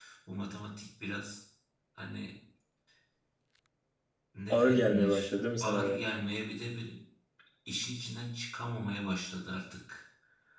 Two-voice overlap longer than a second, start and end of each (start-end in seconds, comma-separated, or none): 4.5-6.0